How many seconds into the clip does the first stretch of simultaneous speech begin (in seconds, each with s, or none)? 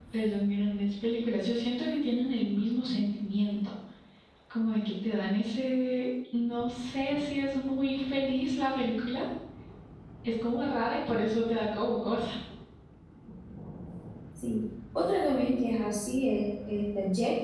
none